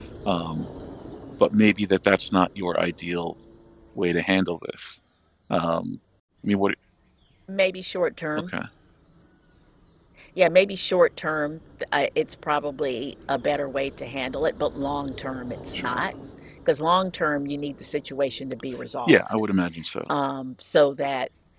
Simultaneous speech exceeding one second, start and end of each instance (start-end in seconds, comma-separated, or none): none